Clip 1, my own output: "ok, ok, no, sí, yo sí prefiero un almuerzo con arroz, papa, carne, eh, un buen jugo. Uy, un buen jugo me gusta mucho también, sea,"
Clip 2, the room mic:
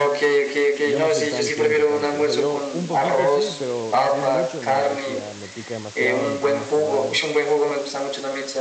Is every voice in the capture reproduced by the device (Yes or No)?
No